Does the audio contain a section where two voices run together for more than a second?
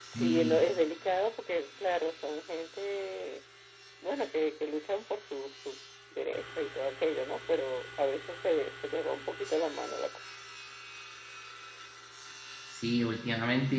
No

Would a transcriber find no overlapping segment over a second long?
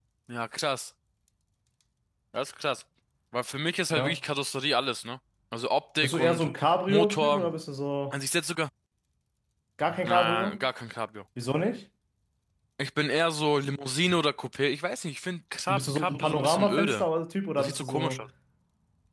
No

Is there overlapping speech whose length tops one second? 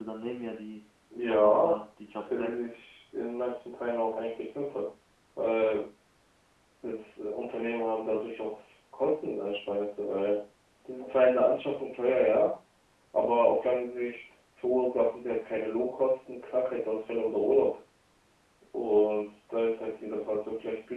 No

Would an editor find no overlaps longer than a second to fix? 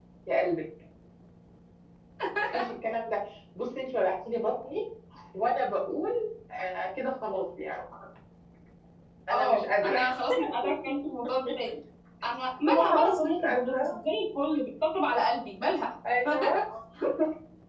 No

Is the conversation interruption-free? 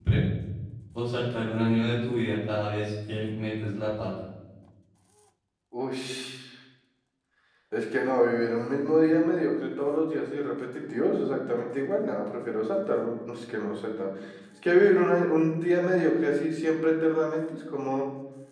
Yes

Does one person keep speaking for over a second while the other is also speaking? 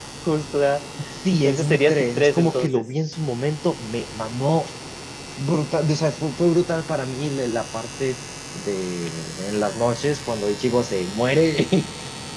Yes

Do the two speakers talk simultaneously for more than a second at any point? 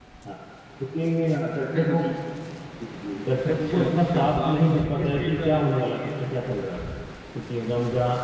Yes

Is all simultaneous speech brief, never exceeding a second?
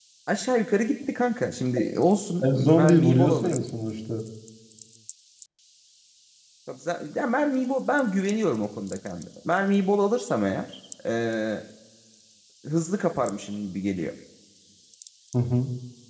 No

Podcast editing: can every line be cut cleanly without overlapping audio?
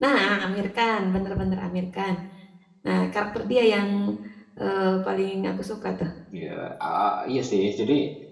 Yes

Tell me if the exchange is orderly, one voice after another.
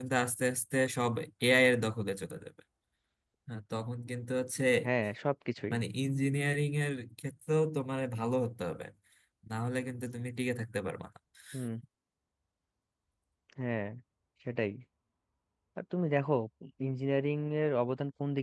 Yes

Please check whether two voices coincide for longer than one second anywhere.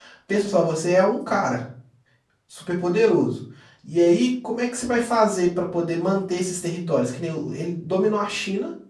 No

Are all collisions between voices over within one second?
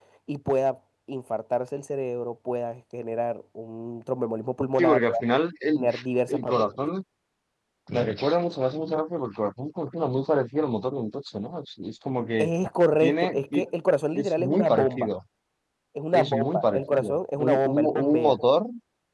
No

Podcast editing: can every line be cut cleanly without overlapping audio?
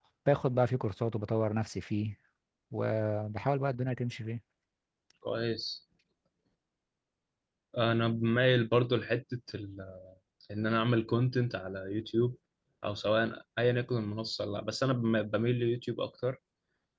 Yes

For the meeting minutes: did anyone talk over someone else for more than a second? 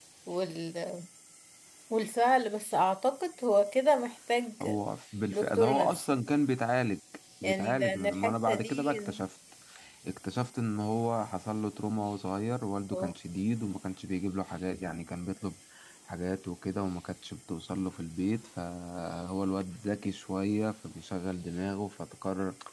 Yes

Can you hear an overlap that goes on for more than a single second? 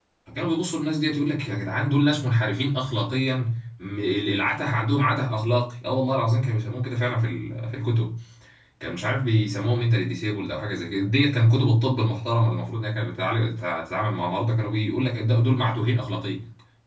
No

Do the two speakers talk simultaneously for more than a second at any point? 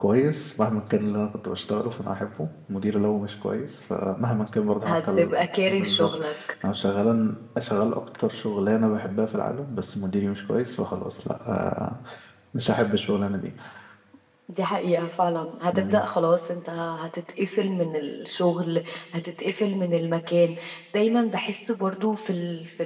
Yes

